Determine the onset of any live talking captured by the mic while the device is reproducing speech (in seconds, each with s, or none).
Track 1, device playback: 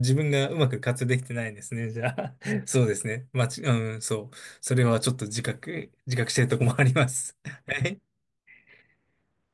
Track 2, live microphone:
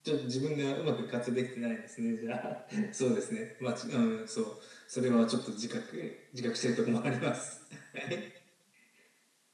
none